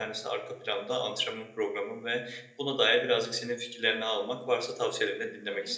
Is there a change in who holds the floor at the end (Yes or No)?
Yes